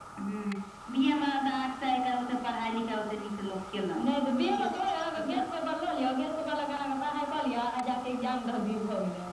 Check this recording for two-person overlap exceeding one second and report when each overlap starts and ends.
none

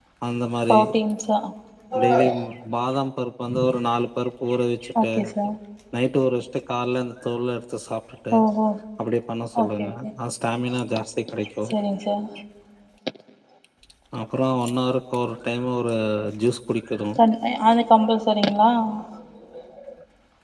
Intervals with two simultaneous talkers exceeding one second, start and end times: none

